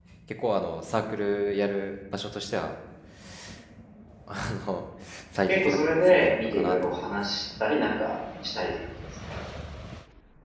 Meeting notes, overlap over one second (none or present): present